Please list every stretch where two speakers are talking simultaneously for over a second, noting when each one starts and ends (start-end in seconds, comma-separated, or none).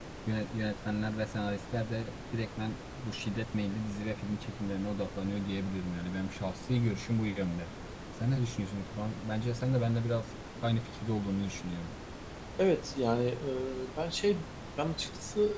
none